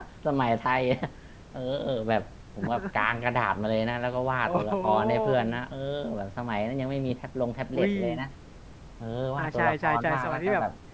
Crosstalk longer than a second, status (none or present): present